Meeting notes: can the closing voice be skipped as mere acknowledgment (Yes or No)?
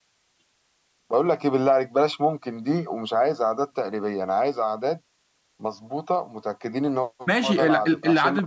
No